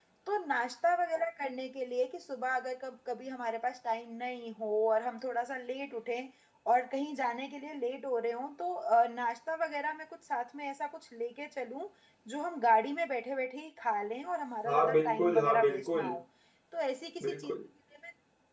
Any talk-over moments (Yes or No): Yes